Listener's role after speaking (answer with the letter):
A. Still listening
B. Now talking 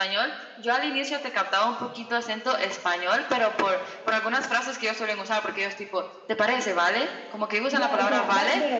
B